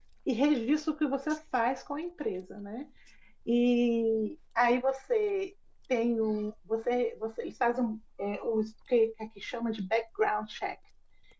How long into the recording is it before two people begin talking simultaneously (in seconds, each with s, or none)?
none